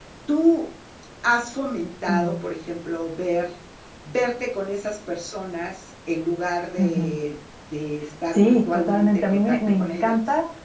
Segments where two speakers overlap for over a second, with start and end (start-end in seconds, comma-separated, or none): 8.3-10.2